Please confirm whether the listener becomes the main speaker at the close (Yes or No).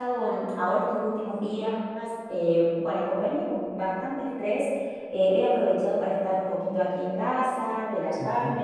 No